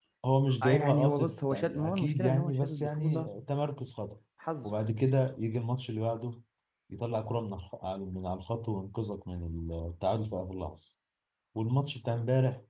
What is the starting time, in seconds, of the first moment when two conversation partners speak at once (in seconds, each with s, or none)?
0.6 s